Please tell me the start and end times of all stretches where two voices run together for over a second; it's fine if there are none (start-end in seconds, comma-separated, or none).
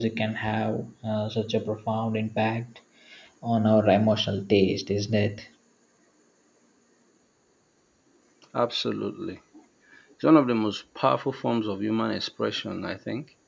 none